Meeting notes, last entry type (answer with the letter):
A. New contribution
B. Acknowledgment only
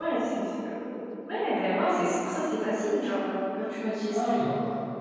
A